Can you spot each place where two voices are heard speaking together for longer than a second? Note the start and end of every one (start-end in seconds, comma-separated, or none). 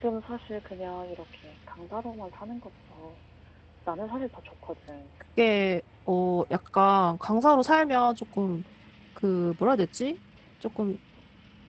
none